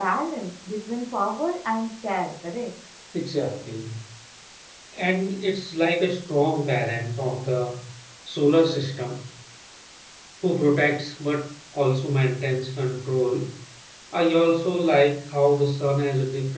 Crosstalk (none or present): none